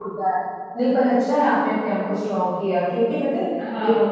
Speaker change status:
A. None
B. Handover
A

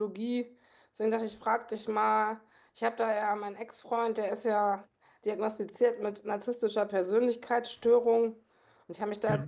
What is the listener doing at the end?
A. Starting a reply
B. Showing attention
B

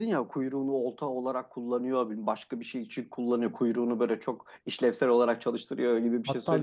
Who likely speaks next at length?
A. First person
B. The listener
B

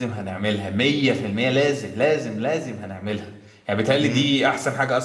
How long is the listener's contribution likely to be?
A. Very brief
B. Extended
A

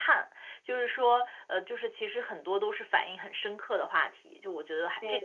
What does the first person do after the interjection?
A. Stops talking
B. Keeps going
A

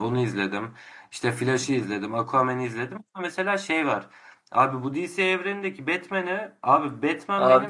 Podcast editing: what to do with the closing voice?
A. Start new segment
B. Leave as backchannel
B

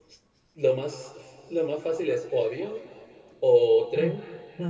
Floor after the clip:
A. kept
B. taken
A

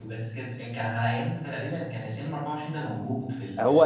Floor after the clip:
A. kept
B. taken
B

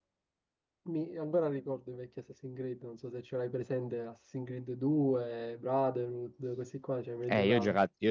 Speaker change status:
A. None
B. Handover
B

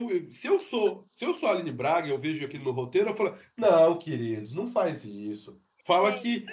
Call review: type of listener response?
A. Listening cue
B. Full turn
A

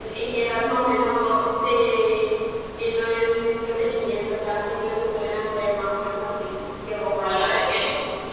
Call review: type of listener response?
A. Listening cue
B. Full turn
B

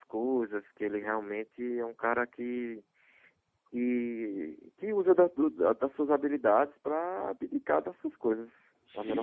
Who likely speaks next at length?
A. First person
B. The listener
B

